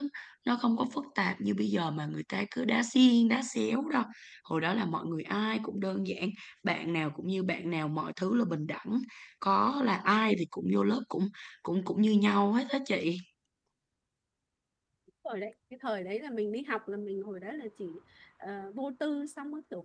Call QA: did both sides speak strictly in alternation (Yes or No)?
Yes